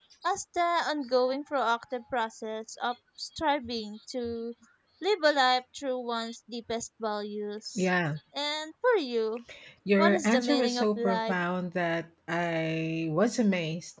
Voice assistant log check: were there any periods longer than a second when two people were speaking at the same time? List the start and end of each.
10.0-11.3

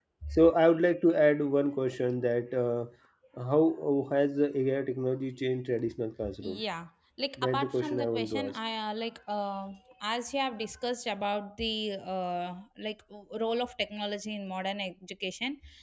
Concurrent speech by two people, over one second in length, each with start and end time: 7.4-8.6

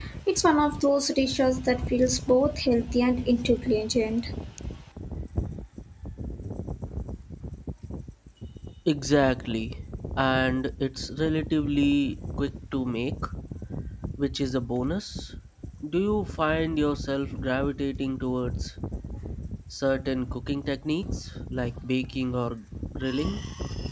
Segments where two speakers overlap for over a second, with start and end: none

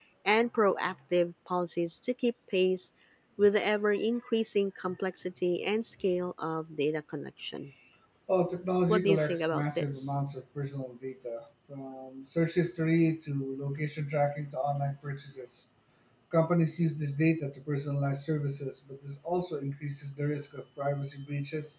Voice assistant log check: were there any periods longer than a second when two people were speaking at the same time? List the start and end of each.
8.9-10.1

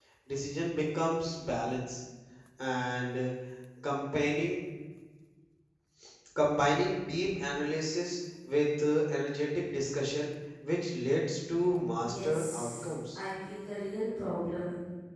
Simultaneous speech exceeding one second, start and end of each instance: 12.0-13.2

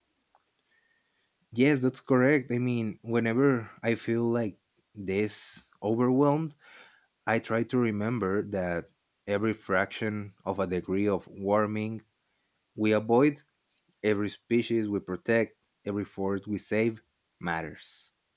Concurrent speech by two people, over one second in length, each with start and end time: none

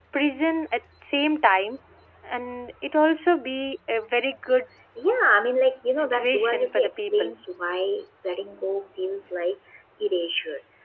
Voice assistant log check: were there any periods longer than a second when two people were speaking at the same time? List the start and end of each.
6.0-7.3

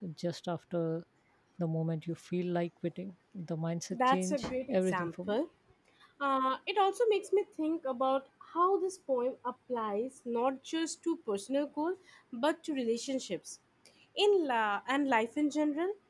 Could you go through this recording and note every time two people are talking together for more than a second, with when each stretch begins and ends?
3.9-5.4

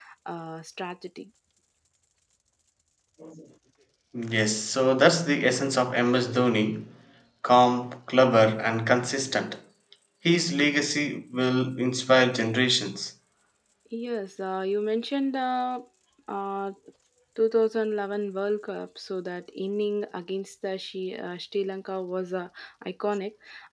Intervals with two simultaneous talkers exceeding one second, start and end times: none

